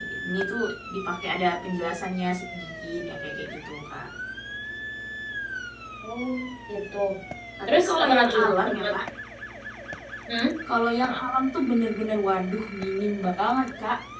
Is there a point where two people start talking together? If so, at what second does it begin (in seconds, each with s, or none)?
7.7 s